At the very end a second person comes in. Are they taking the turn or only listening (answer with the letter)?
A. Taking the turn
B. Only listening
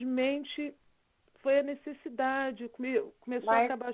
B